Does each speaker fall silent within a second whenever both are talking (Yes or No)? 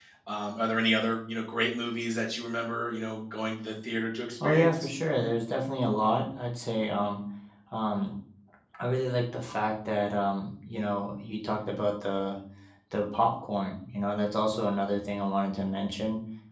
Yes